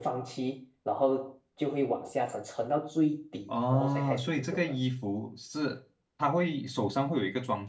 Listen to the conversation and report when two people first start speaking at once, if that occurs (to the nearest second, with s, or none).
3 s